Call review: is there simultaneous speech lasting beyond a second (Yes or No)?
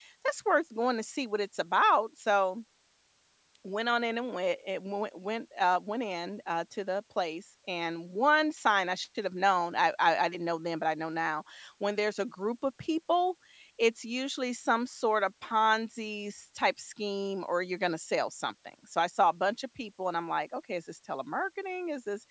No